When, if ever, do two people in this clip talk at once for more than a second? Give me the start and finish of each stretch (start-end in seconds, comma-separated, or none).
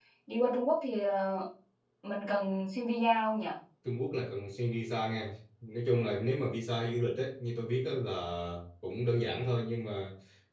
none